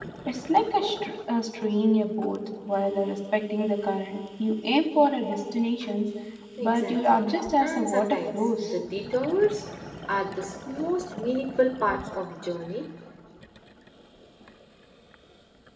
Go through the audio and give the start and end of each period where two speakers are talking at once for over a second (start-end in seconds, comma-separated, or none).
6.6-8.7